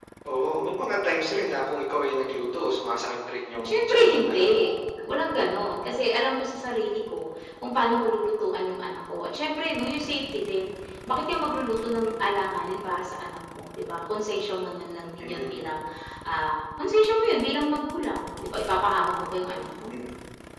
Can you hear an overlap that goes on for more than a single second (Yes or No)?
Yes